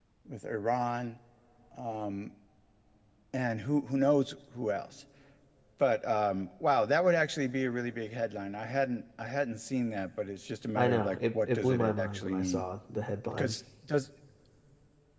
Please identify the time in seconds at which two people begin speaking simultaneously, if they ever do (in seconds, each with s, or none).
10.8 s